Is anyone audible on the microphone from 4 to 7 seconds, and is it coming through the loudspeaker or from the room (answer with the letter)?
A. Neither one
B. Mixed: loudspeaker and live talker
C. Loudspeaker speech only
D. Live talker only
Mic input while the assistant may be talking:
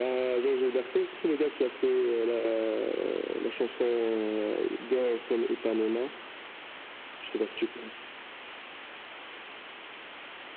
C